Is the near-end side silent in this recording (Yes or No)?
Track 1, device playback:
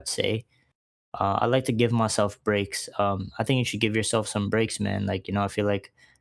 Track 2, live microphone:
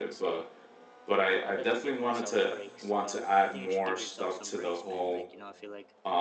No